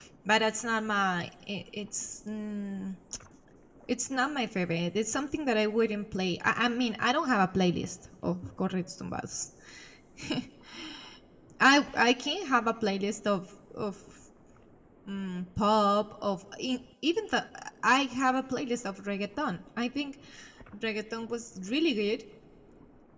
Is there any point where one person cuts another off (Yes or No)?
No